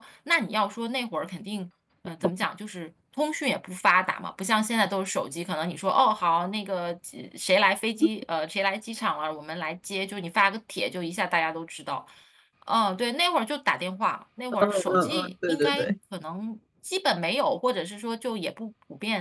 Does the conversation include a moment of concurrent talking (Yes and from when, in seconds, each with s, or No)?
Yes, from 14.5 s